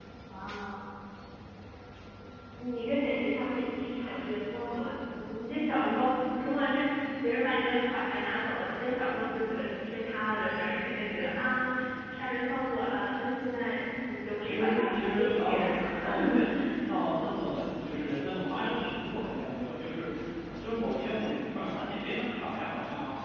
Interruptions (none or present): present